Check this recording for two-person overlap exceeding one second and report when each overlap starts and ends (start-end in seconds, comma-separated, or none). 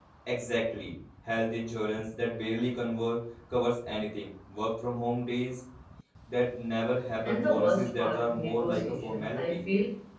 7.2-9.6